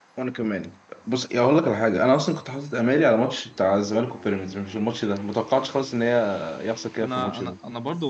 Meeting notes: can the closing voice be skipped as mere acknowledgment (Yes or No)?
No